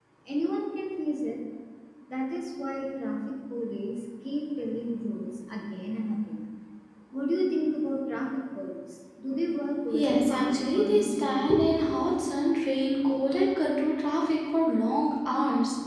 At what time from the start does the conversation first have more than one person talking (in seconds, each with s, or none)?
9.9 s